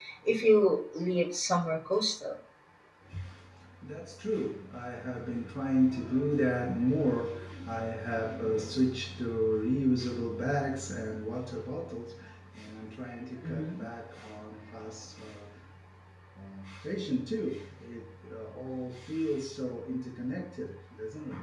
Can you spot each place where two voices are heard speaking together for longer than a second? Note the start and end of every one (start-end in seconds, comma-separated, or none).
none